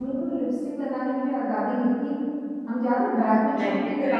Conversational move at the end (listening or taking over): listening